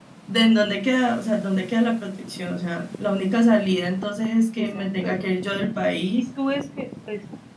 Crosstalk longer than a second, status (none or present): none